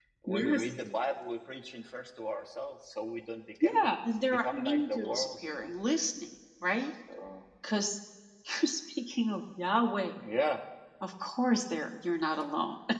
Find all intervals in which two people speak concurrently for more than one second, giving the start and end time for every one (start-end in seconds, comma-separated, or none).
4.3-5.7